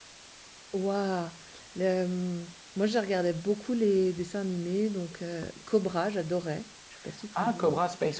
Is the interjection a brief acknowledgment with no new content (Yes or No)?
No